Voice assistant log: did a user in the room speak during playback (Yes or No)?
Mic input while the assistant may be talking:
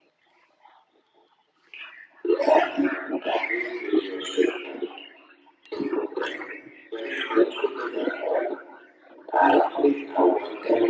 No